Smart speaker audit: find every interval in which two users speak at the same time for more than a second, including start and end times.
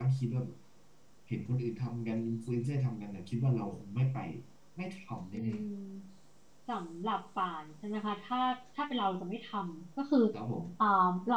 none

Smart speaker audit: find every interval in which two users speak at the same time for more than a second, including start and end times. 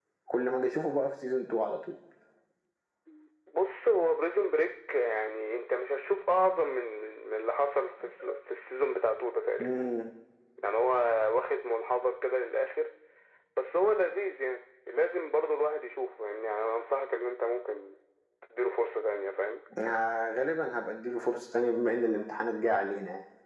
none

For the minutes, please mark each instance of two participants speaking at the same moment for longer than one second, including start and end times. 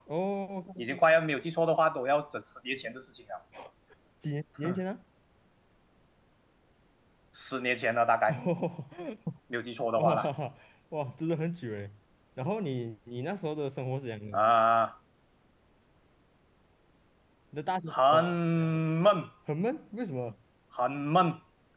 none

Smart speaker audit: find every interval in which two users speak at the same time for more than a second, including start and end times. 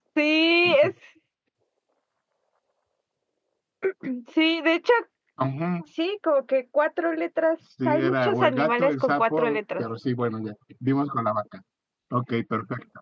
7.8-9.8

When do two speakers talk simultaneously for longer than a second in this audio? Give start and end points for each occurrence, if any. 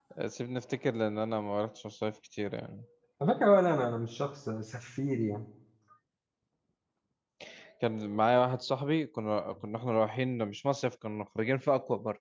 none

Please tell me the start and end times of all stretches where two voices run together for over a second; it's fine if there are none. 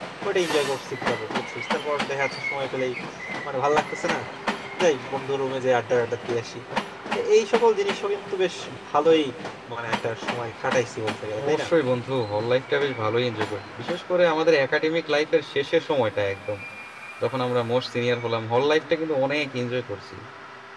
none

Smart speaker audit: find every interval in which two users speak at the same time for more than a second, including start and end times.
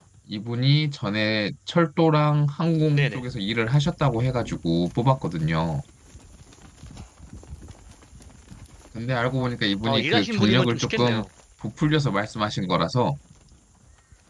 9.8-11.2

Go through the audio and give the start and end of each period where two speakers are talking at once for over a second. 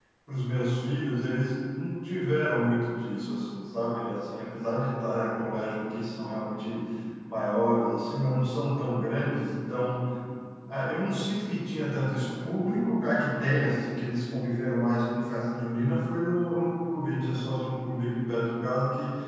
none

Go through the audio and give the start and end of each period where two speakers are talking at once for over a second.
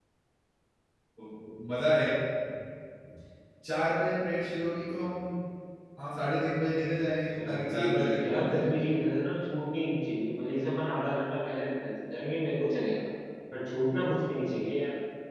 7.5-8.7

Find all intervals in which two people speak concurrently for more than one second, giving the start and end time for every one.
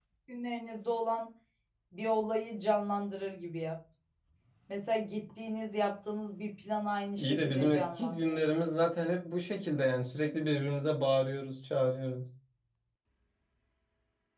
7.2-8.4

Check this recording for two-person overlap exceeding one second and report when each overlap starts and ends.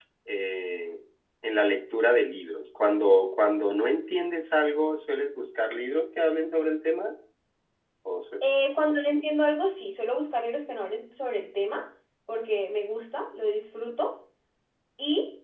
none

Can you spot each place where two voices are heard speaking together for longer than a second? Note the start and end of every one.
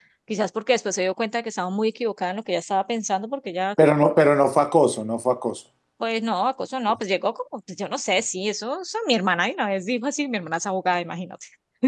none

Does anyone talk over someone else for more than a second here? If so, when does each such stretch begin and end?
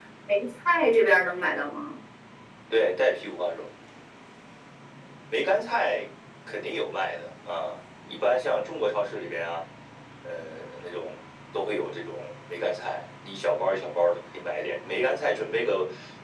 none

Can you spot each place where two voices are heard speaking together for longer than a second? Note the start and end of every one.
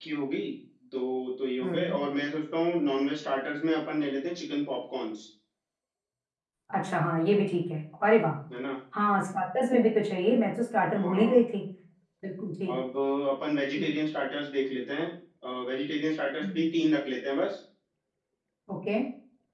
none

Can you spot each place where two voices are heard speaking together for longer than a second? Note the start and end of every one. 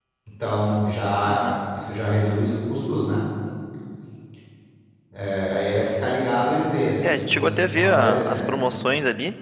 7.0-8.4

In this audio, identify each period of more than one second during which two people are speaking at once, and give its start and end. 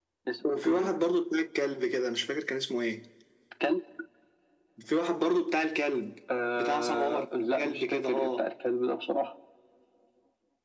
6.5-8.5

